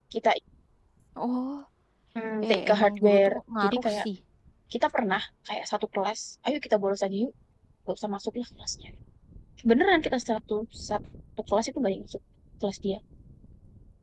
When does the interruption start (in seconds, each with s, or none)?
2.5 s